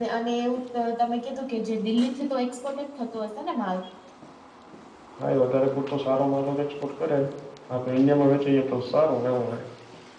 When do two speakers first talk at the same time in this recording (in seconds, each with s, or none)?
none